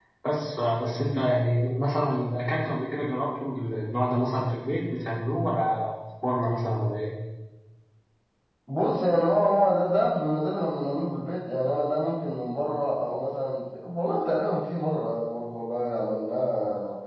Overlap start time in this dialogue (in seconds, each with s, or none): none